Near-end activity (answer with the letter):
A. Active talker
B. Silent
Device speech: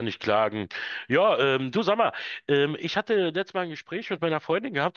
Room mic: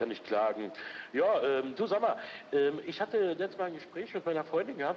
B